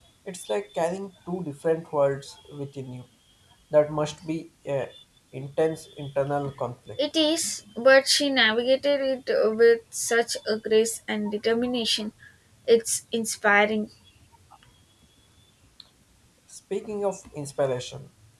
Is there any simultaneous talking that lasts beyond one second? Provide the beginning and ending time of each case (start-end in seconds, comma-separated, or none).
none